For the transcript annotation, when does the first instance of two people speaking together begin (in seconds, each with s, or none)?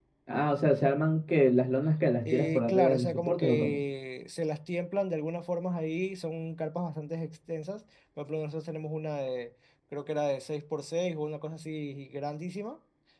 2.2 s